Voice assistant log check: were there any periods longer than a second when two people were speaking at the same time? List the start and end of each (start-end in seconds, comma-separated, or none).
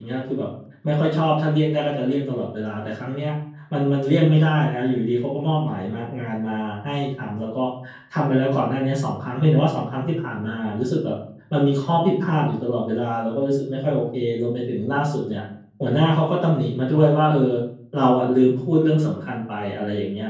none